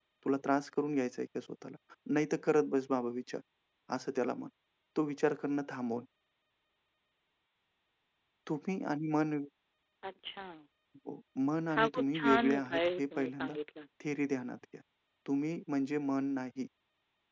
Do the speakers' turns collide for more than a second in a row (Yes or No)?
Yes